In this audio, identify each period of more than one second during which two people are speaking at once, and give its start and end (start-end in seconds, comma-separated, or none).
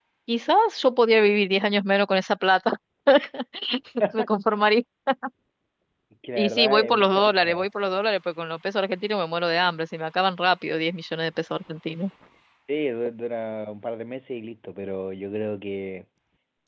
6.3-7.7